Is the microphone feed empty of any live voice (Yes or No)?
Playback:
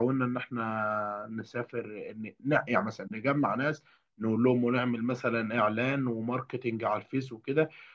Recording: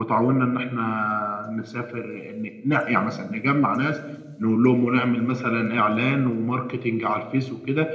Yes